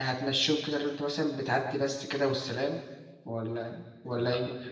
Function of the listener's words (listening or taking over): taking over